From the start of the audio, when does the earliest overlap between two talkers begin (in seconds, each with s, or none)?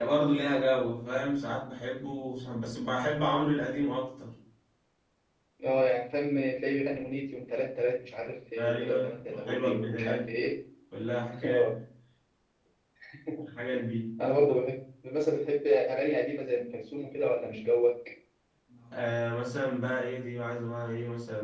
8.6 s